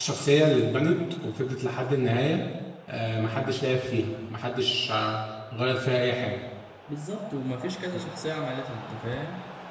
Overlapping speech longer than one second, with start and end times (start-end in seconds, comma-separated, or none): none